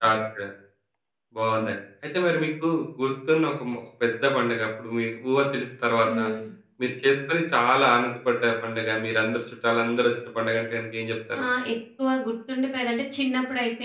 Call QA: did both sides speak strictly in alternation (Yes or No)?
Yes